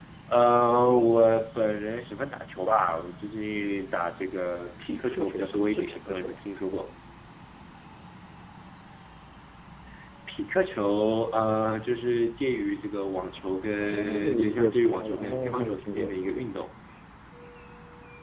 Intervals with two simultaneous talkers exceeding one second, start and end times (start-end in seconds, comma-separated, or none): 4.8-6.4, 13.8-16.4